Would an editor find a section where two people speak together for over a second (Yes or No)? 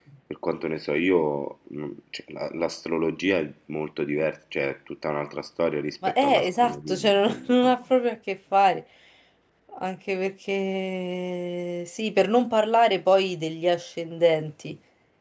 Yes